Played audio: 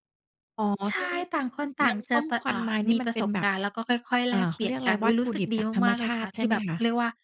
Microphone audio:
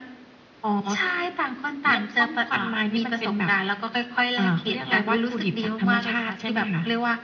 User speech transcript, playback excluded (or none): none